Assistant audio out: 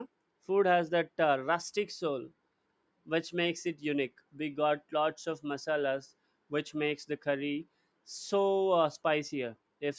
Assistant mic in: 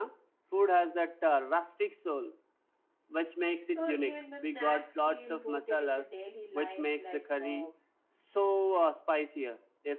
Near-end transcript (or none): So even the snacks feel rooted in the daily life, like uh,